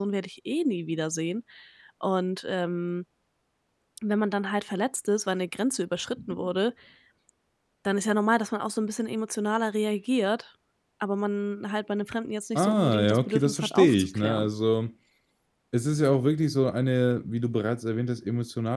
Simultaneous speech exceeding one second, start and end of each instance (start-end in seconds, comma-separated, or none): 12.6-14.5